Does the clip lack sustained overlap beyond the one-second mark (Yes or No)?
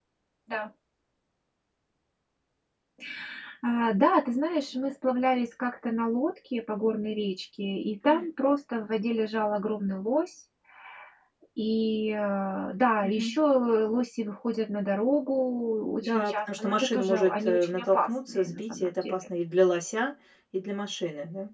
No